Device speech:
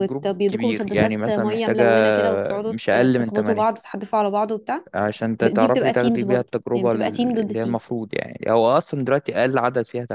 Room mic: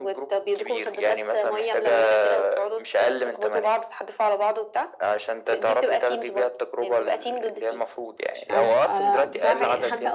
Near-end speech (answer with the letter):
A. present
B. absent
A